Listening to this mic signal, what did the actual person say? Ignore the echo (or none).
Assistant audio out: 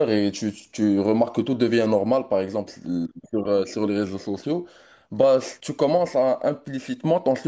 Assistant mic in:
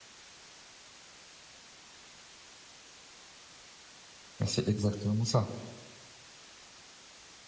mais c'est exactement ça.